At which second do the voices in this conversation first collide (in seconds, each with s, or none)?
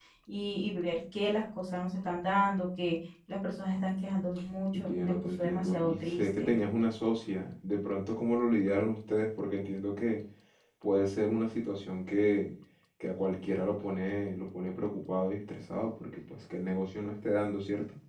4.7 s